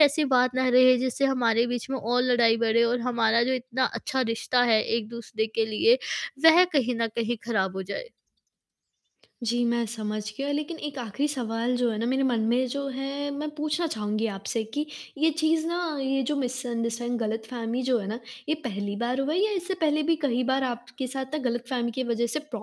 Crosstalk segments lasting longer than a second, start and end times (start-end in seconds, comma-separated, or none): none